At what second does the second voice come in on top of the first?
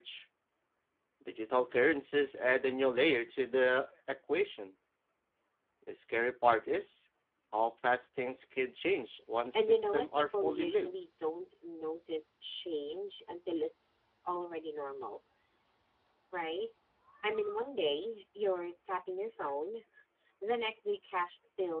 9.5 s

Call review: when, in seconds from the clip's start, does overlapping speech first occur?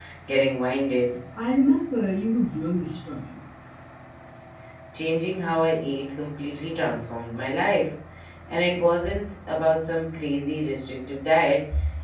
none

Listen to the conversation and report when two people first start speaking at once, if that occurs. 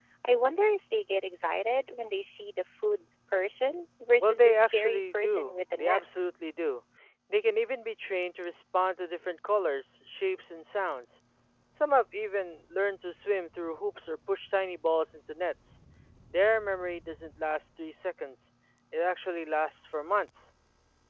4.2 s

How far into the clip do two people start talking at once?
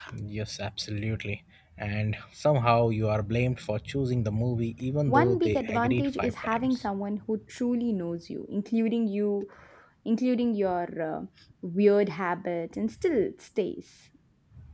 5.1 s

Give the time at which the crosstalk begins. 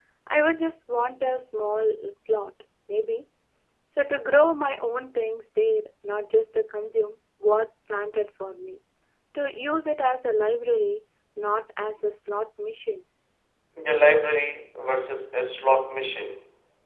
none

